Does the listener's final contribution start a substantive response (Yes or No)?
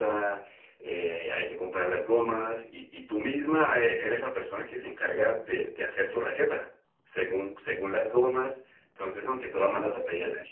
No